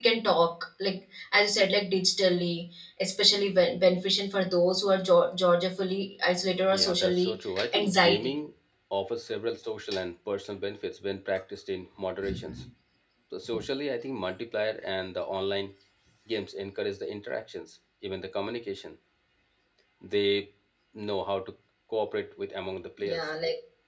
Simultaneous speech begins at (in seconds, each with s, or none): 6.7 s